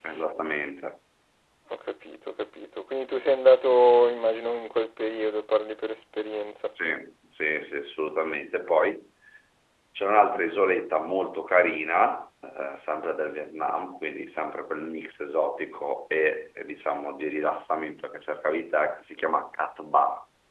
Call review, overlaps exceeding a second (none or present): none